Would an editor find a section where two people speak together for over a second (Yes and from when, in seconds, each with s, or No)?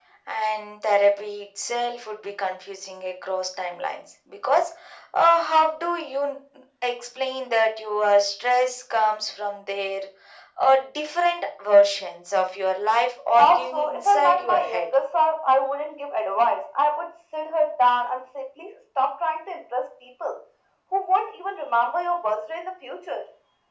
Yes, from 13.4 s